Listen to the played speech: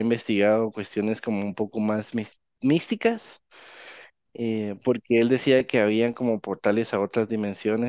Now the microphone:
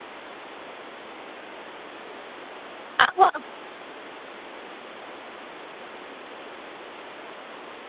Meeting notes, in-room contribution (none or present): present